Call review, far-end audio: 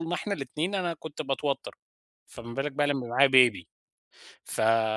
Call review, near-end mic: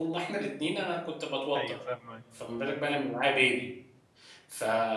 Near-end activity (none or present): present